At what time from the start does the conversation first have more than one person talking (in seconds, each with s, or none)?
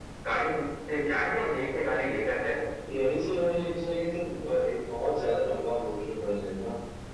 none